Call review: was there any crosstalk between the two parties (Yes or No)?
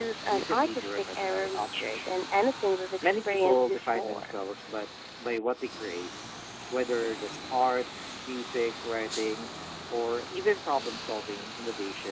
Yes